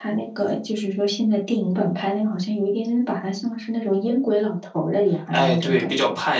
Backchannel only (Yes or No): No